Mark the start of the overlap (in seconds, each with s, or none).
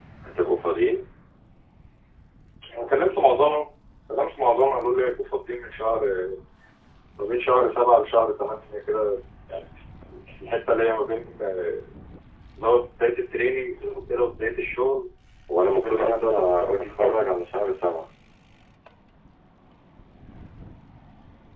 15.7 s